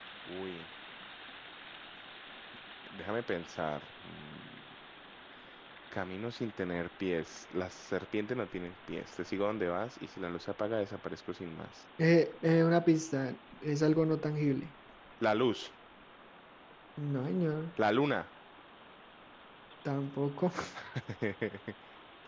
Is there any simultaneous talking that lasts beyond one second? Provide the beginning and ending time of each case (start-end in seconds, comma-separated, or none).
none